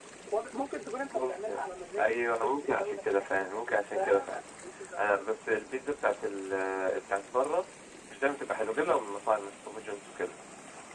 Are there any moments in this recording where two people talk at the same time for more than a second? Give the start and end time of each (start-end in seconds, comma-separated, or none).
2.0-4.3